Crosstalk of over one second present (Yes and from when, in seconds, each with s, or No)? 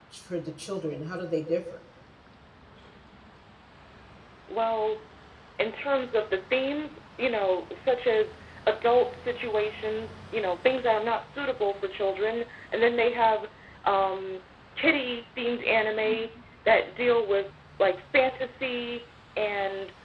No